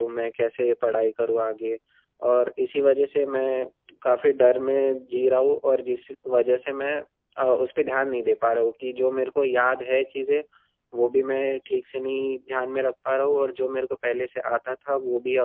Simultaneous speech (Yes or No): No